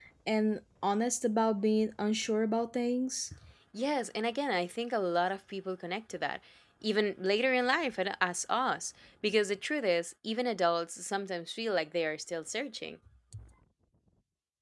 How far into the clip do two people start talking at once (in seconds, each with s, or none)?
none